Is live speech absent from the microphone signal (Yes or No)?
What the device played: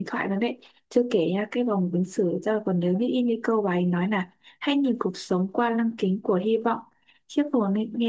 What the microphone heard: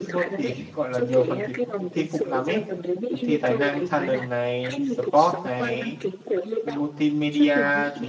No